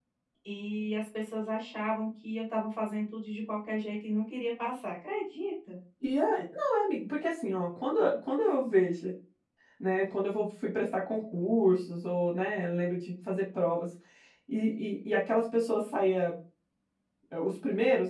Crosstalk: none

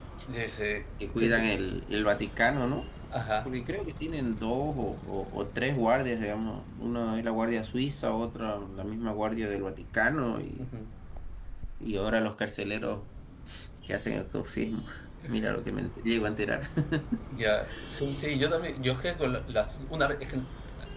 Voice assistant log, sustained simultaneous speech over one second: none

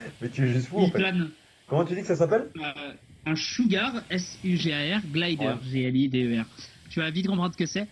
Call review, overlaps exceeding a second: none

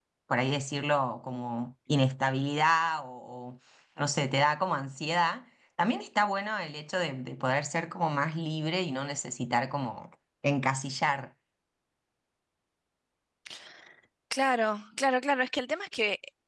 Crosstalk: none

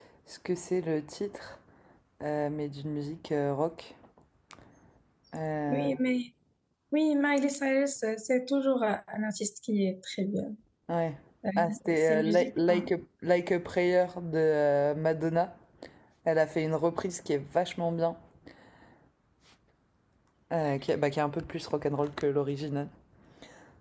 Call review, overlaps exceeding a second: present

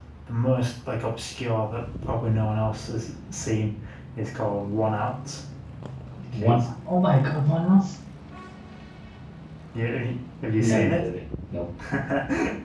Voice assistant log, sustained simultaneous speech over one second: none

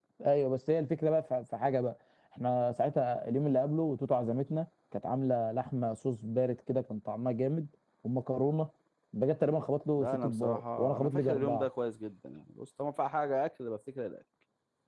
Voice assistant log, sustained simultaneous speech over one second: present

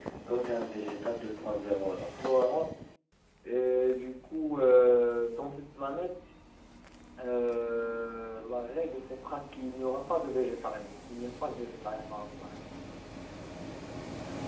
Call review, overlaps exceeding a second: none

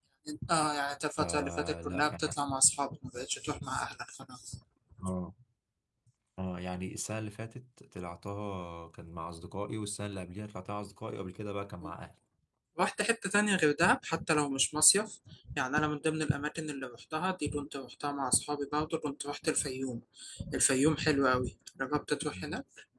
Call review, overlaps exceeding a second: present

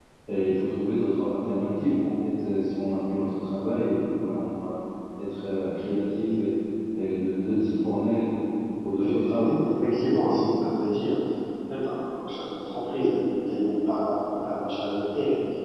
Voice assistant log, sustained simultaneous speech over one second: present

